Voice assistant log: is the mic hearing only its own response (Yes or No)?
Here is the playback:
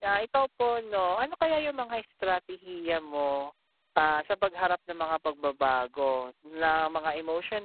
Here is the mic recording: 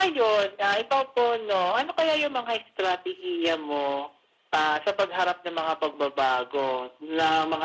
Yes